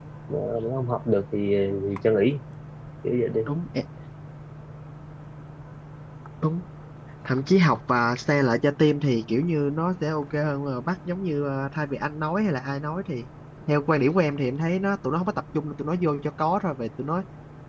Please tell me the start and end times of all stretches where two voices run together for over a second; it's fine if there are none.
none

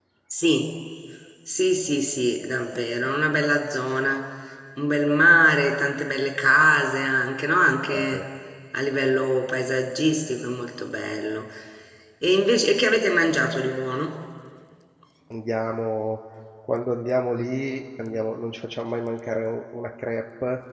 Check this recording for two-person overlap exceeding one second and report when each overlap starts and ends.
none

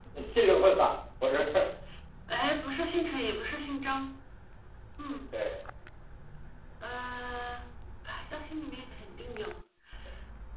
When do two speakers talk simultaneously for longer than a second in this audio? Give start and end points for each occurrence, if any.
none

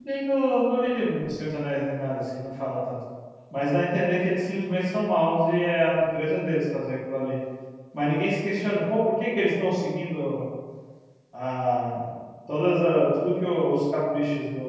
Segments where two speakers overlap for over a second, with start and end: none

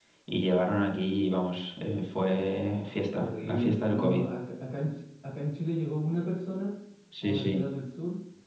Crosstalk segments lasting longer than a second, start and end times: 2.2-4.2

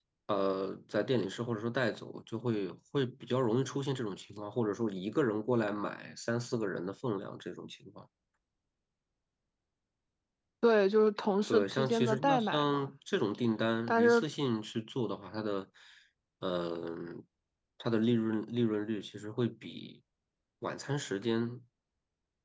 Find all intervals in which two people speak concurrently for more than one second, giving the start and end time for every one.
11.5-12.9

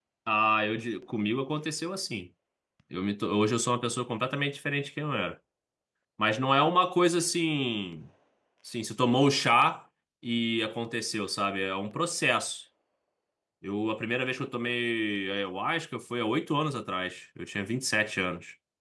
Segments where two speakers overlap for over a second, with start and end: none

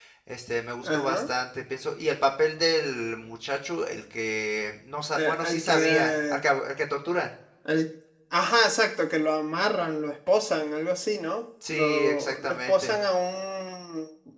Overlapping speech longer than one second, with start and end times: 5.1-6.4, 11.7-13.0

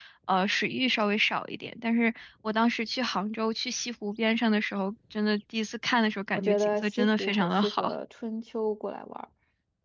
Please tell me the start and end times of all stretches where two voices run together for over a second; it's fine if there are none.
6.3-8.0

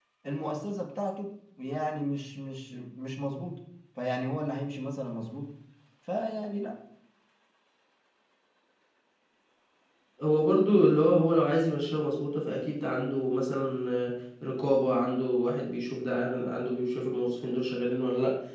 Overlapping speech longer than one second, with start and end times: none

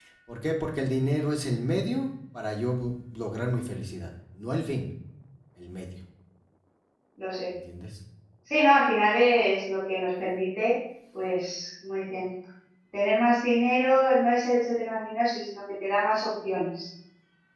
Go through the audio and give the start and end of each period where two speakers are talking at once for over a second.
none

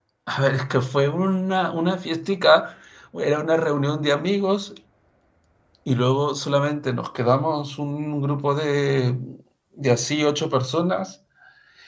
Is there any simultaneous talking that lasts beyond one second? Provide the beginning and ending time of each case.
none

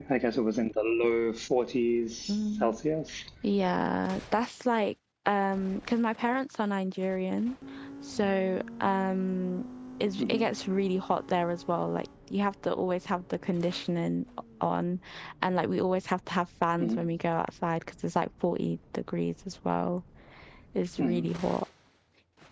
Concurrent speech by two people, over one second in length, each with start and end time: none

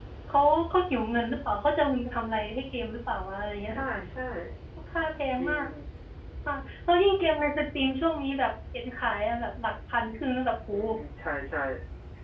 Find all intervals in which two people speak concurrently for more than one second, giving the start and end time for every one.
none

